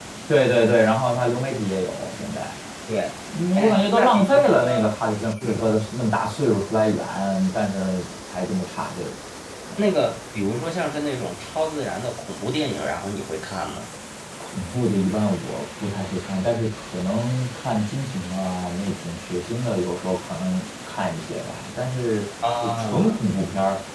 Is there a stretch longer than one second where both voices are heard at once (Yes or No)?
Yes